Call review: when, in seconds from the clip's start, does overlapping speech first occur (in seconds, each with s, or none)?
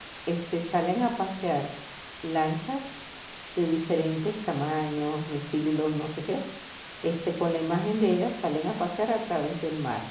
none